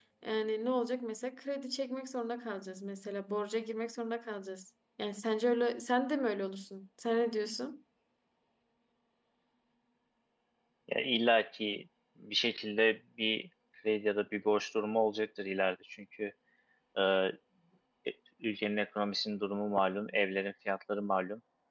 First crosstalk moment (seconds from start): none

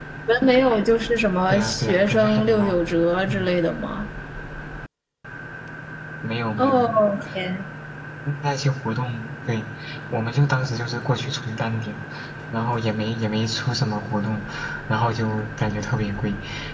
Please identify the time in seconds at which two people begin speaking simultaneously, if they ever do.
1.5 s

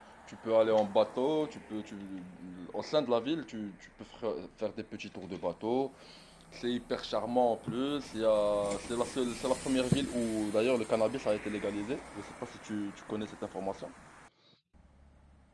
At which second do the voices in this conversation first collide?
none

